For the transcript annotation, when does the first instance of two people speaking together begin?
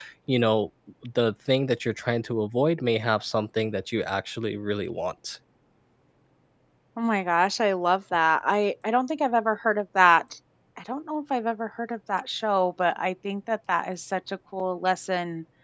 none

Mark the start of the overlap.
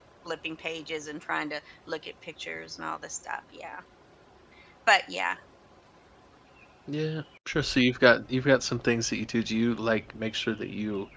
none

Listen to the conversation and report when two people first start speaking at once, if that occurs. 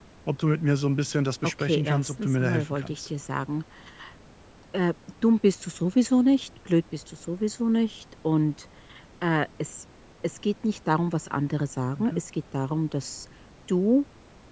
1.6 s

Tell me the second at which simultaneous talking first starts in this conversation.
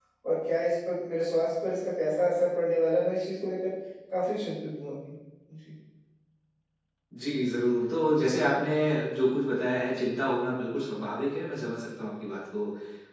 none

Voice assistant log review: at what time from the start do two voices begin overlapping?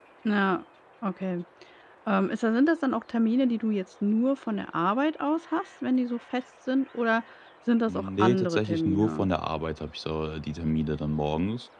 7.9 s

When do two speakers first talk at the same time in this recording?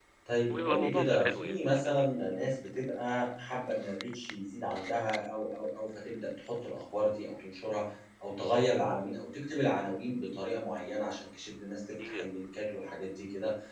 0.5 s

